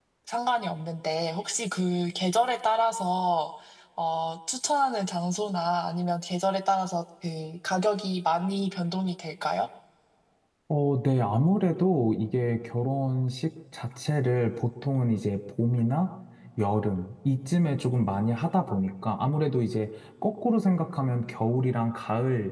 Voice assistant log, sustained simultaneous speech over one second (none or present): none